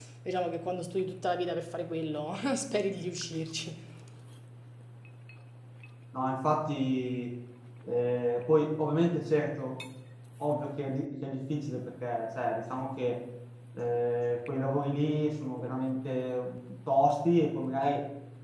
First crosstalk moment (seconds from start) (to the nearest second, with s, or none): none